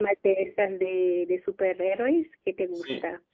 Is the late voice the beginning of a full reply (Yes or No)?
Yes